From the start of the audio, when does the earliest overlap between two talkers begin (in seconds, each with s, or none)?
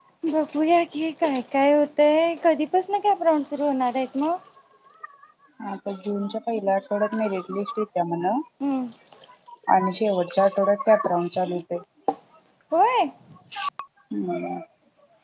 none